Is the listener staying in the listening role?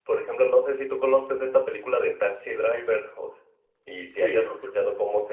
Yes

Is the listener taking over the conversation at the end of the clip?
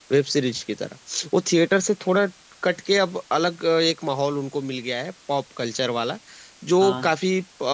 No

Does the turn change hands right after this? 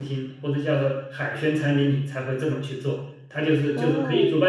No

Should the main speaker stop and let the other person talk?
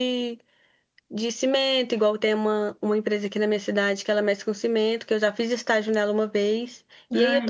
No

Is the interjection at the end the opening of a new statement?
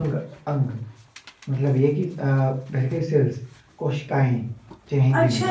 Yes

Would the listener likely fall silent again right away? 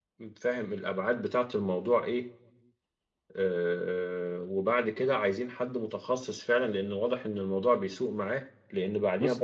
Yes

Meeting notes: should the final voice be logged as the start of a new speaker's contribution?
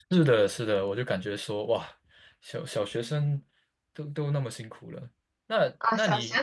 Yes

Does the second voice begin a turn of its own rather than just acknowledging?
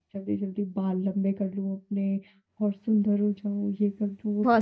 Yes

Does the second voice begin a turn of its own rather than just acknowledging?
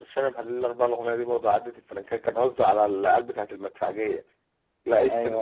No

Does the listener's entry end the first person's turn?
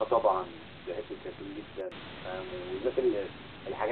No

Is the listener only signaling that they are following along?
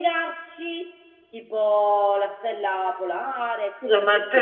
No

